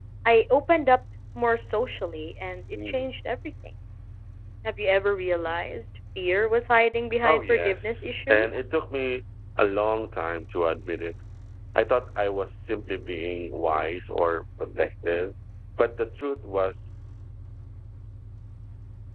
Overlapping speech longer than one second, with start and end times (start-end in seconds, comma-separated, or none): 7.2-8.5